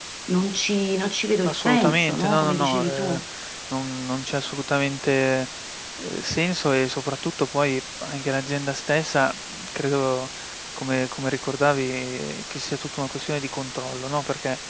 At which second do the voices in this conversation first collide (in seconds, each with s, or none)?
1.4 s